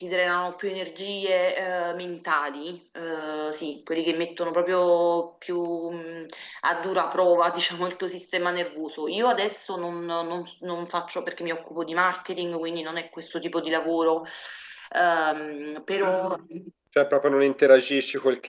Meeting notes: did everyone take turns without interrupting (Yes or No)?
Yes